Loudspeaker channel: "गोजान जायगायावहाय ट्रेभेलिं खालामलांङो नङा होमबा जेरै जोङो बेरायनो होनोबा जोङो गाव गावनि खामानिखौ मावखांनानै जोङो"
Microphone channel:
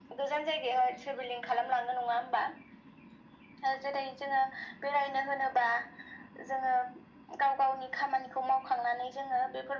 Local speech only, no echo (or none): none